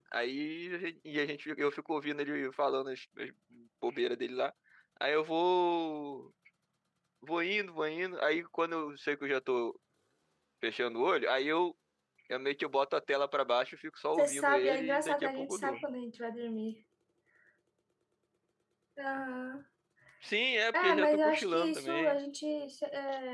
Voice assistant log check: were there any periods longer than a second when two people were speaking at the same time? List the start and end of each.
14.2-15.8, 20.7-22.1

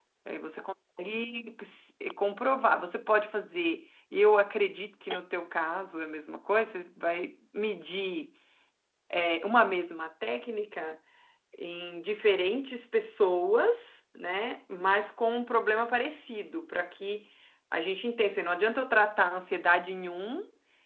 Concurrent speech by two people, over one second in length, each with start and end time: none

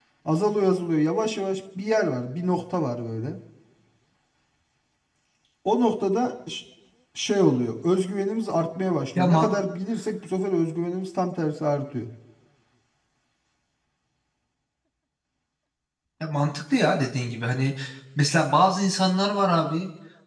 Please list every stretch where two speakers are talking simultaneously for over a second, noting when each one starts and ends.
none

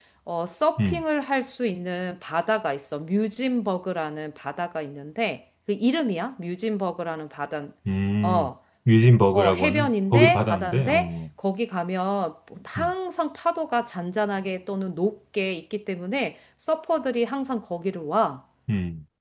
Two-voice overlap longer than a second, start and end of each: 9.3-11.1

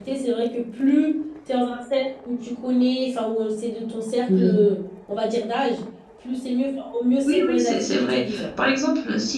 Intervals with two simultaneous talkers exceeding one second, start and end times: 7.2-8.5

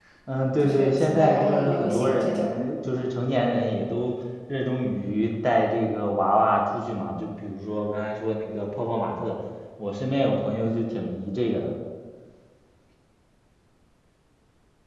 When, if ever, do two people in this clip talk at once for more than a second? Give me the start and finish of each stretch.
0.6-2.5

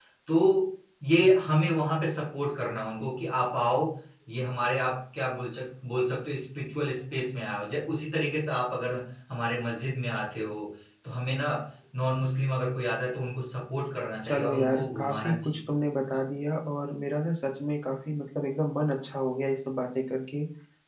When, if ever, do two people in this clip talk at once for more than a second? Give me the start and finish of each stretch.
14.2-15.6

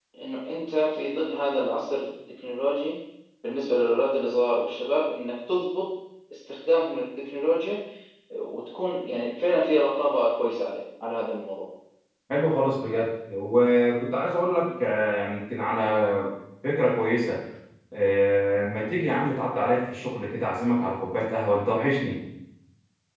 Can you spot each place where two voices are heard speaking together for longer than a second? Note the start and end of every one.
none

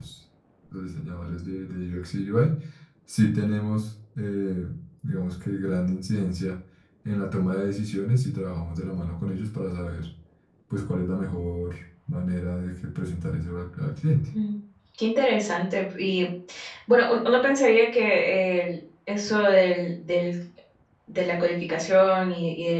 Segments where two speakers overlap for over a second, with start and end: none

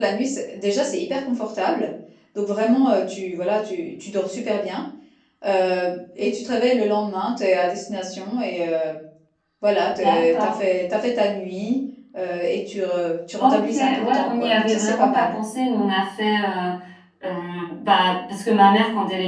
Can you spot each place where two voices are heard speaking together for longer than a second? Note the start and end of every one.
13.4-15.4

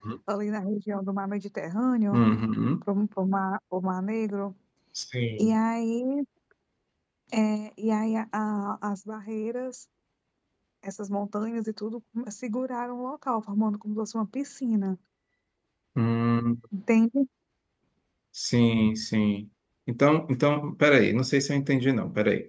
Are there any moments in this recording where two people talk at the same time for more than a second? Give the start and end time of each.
none

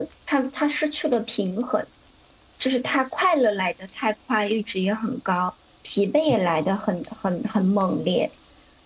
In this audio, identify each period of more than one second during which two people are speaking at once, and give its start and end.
none

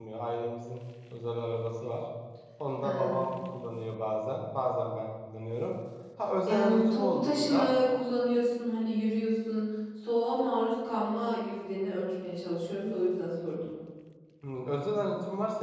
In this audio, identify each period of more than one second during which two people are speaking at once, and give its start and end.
6.5-7.8

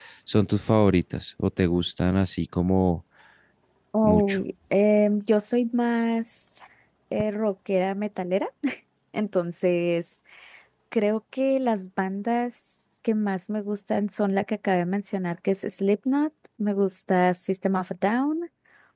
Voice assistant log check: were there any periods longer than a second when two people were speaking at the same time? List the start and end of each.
none

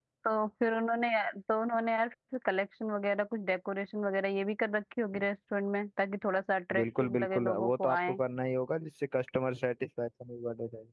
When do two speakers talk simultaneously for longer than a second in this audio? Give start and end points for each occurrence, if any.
6.8-8.2

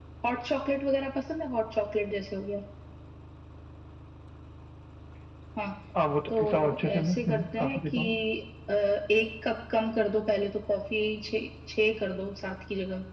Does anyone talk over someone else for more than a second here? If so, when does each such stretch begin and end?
6.4-8.0

